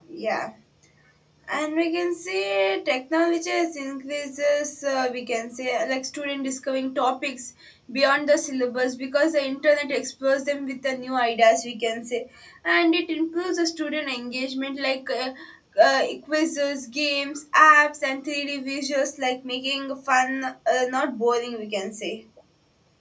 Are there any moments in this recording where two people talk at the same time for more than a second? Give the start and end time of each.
none

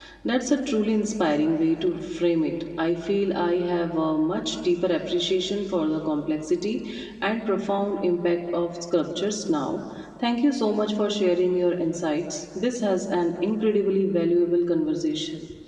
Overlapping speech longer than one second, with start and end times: none

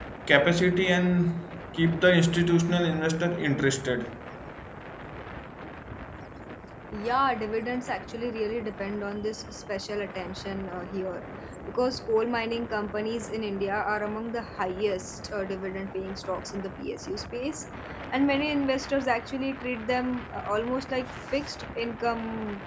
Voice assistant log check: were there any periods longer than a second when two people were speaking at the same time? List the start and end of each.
none

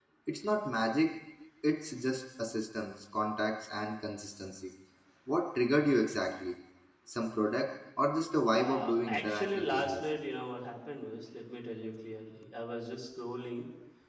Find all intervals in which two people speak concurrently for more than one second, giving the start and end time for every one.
8.4-10.0

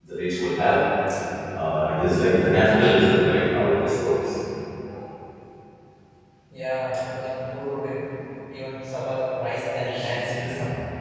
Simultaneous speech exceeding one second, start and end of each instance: none

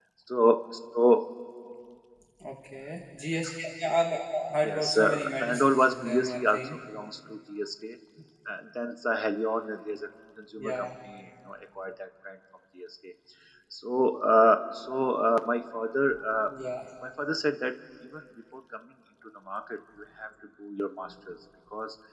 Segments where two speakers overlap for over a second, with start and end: 4.6-6.8

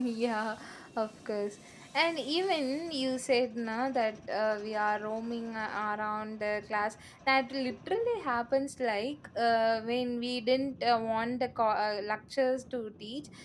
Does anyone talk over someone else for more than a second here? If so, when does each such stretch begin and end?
none

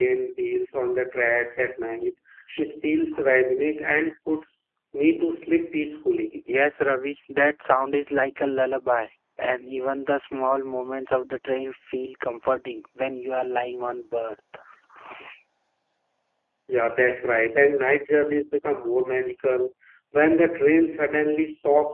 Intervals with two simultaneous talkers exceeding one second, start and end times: none

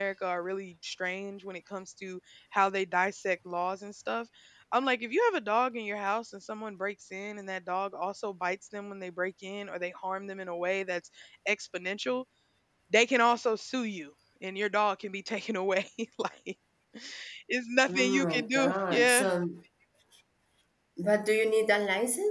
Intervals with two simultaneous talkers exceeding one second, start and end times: 17.9-19.3

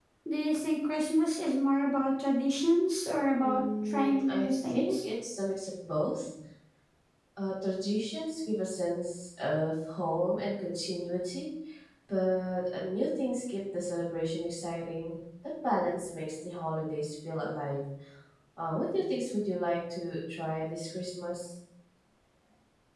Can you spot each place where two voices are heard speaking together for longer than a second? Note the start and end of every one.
3.4-5.0

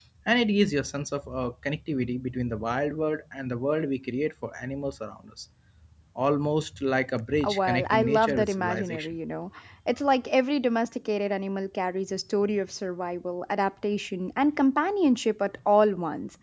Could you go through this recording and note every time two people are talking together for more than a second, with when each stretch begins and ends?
7.5-9.2

